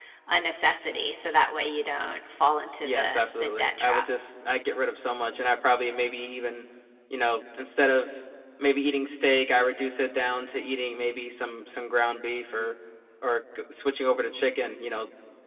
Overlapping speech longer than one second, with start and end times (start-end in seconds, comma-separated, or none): 2.8-4.0